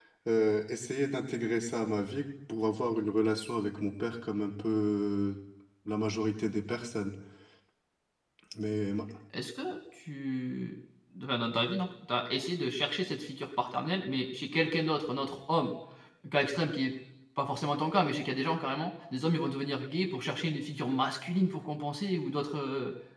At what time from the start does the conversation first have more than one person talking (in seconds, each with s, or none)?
none